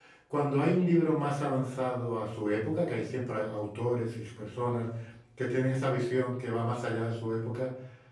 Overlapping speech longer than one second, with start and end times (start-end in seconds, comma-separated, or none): none